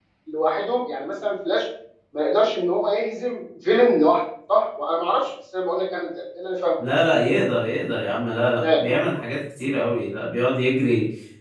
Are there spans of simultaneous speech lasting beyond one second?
No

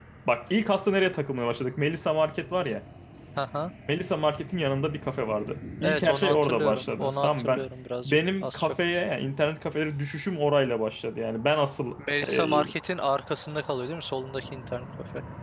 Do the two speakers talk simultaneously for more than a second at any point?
Yes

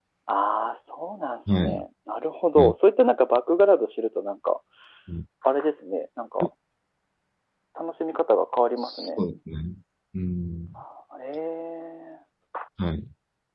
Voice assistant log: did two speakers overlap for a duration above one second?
No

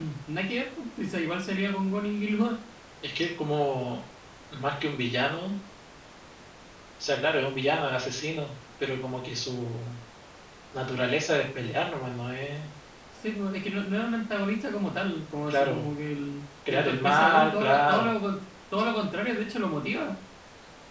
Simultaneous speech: Yes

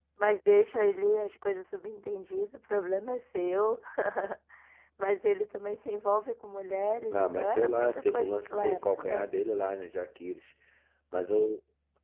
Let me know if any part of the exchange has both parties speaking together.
Yes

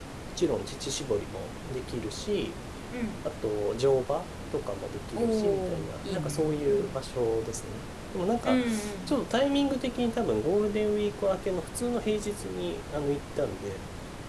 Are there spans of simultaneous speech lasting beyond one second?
Yes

